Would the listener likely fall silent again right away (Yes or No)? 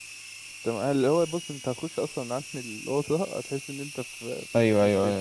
No